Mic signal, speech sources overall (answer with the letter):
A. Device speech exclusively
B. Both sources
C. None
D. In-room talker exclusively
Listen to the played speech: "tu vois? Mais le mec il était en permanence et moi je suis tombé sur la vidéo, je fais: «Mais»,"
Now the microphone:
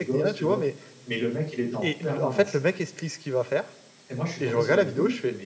B